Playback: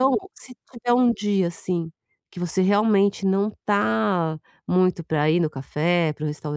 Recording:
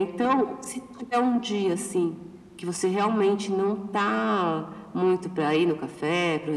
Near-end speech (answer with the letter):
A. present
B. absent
B